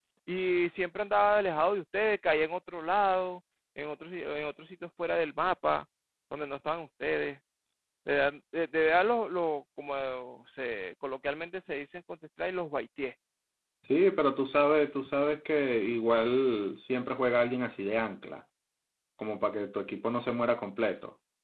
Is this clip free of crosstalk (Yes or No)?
Yes